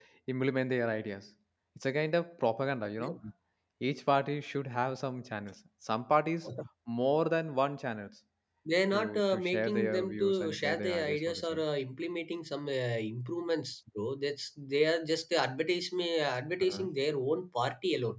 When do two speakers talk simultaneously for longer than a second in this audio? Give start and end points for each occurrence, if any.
8.9-11.6

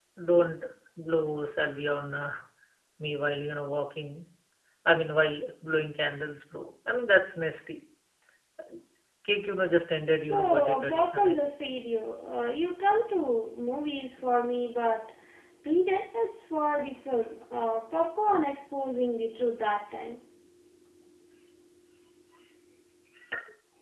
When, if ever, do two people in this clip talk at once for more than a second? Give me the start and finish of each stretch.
10.2-11.5

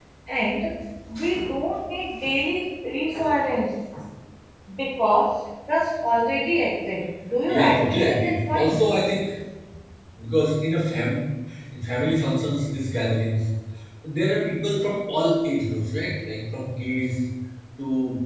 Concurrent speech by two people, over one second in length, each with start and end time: 7.5-8.8

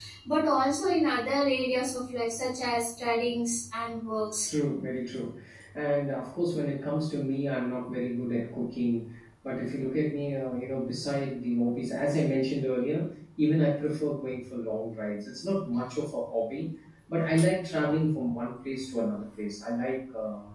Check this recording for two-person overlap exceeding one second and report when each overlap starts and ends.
none

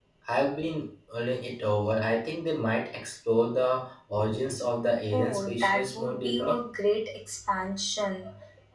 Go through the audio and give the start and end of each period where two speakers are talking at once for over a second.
5.1-6.6

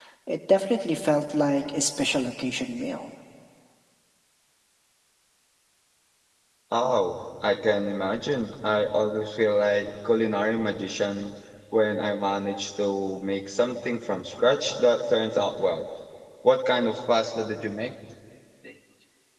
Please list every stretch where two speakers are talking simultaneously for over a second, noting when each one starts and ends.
none

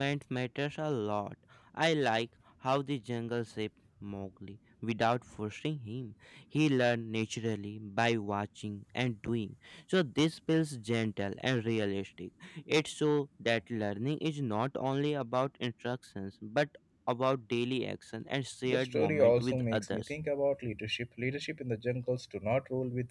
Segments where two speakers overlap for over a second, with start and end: 18.6-20.2

